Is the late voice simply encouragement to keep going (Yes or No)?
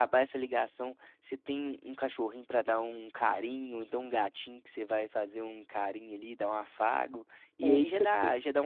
Yes